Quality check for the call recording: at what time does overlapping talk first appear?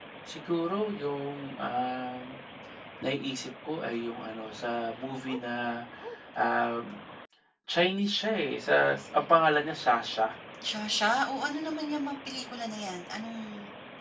none

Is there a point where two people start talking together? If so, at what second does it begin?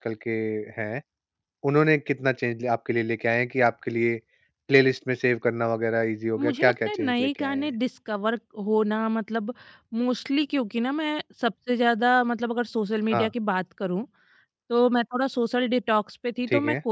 6.4 s

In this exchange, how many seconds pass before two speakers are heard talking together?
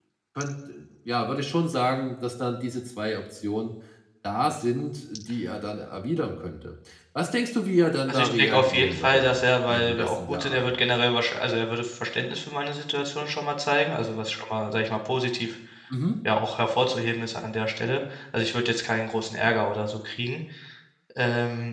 8.1 s

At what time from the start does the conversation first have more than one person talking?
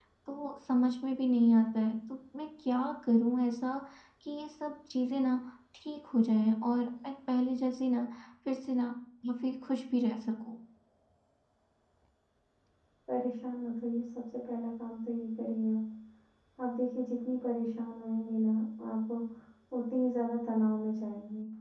none

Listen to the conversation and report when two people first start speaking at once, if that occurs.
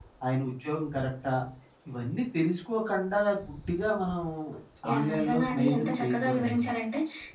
4.9 s

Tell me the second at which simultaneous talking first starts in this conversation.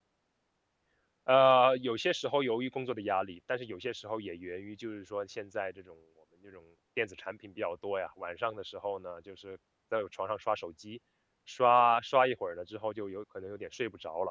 none

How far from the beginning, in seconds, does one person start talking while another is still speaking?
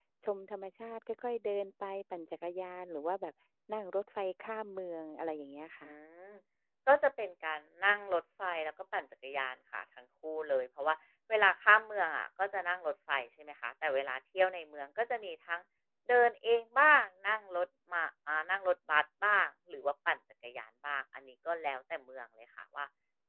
none

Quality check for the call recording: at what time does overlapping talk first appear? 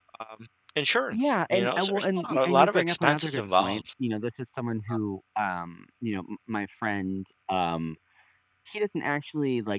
1.1 s

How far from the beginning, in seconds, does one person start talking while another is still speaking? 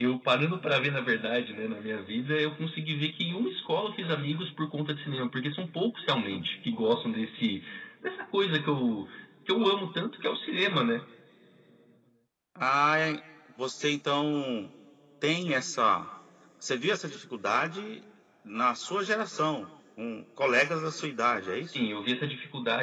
none

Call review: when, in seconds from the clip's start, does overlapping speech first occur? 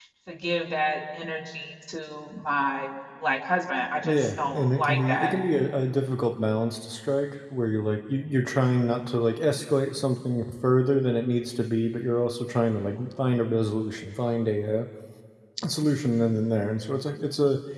4.0 s

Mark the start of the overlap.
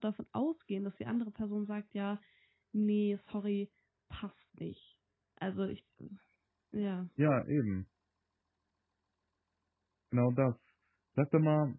none

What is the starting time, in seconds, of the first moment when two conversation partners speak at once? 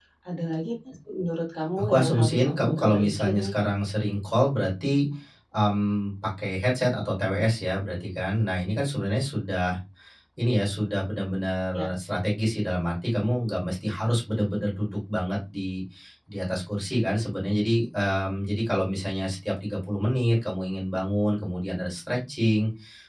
1.8 s

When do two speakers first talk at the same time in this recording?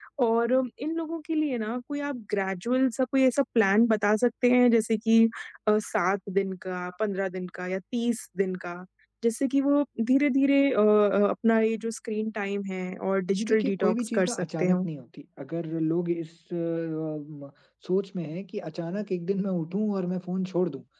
13.3 s

